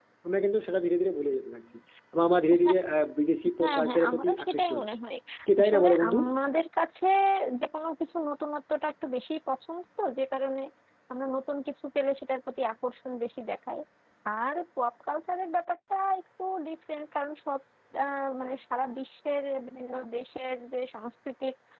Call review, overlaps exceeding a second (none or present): present